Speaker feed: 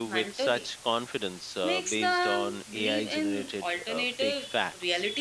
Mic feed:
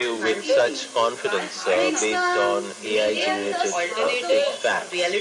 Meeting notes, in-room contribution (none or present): present